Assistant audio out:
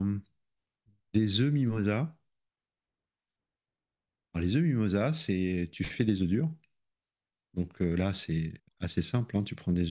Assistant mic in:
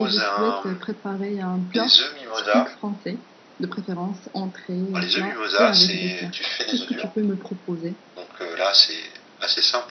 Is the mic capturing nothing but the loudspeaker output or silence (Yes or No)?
No